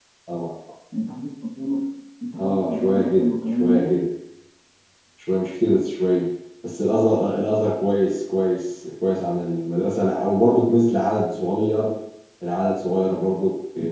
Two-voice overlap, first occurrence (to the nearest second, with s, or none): 2 s